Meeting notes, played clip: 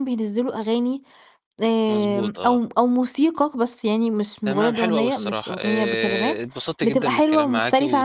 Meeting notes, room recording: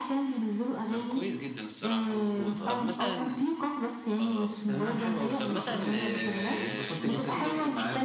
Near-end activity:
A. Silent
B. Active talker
B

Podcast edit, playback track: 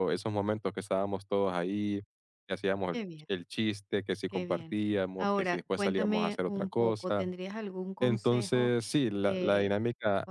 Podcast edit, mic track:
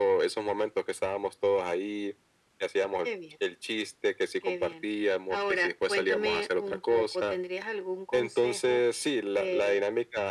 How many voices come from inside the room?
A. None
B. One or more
A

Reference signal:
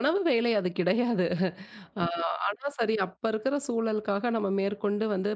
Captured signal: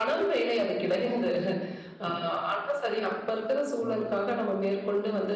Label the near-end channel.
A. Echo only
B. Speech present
B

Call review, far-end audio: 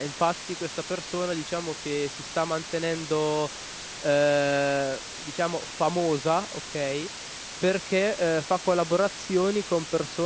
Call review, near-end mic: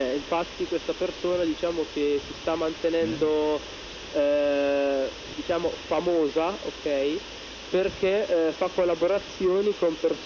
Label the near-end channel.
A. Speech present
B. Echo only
A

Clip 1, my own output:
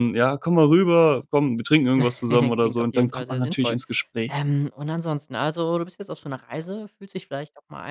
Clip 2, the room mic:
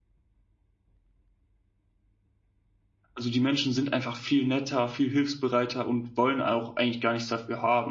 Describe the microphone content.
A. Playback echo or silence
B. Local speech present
B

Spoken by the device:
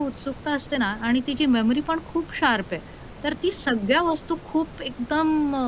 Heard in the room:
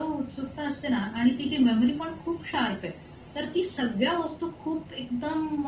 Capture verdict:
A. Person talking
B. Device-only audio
B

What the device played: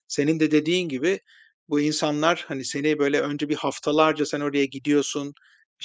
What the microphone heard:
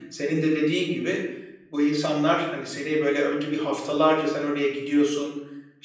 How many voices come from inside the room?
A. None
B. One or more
A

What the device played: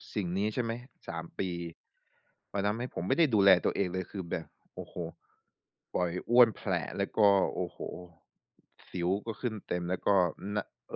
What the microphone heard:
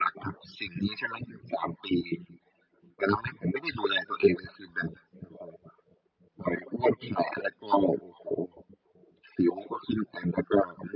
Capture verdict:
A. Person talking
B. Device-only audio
B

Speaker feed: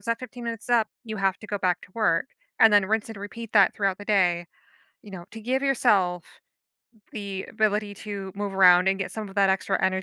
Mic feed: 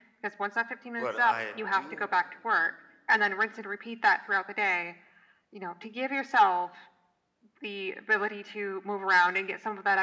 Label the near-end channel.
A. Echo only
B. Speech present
B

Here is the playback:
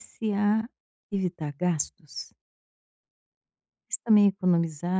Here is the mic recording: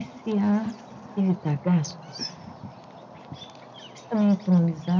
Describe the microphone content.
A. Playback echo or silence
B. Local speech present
A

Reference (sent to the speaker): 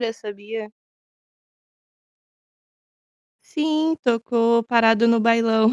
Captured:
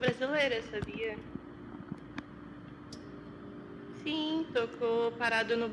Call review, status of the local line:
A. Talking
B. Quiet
B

